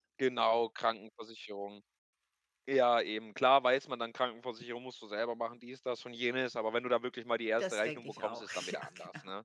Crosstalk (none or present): present